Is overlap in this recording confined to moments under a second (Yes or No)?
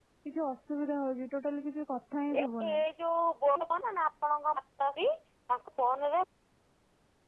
Yes